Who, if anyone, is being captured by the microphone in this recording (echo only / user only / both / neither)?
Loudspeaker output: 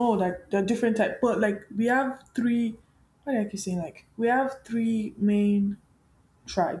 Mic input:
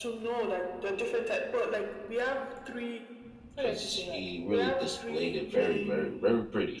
both